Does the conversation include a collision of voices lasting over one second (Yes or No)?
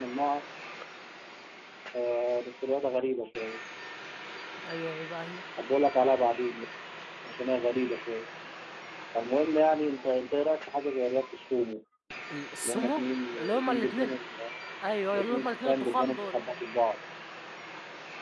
Yes